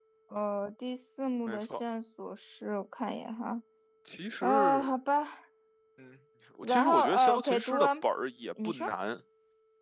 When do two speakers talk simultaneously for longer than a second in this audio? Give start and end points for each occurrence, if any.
6.6-7.9

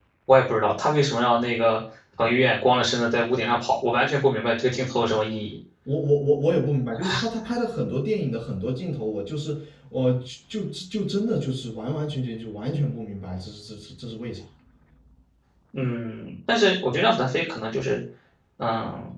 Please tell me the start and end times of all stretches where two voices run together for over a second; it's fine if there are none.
none

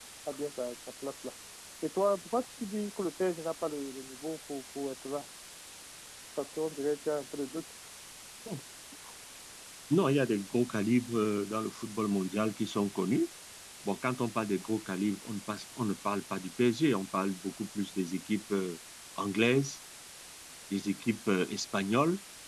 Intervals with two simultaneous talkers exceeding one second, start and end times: none

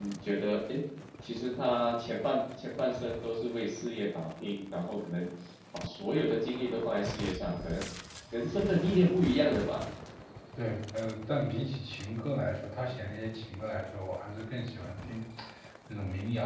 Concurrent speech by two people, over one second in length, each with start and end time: none

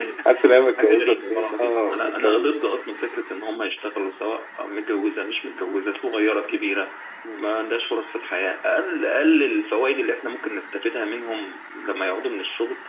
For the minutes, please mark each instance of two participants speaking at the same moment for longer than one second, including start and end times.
0.8-2.5

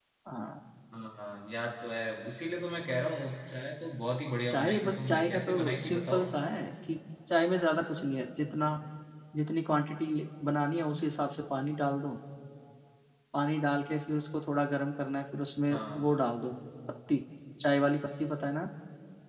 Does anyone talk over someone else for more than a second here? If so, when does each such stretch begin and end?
4.5-6.3

